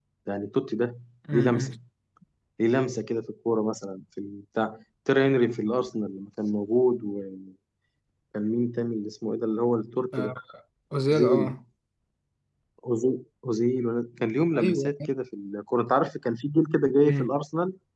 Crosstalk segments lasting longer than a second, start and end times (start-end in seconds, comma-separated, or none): none